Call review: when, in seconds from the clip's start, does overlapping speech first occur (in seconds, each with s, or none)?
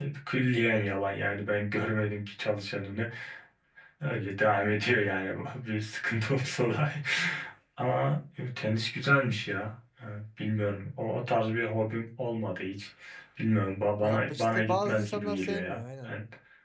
14.0 s